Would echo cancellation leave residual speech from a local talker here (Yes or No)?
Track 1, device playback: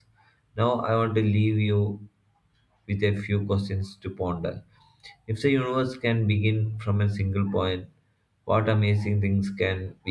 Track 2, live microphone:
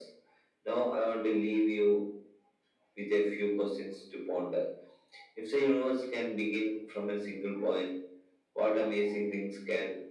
No